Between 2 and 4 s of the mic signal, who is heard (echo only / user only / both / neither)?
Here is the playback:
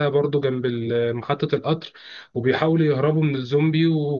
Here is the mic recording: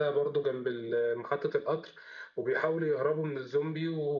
echo only